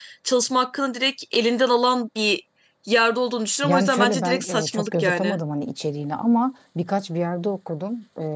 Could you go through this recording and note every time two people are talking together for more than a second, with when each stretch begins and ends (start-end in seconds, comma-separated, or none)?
3.6-5.4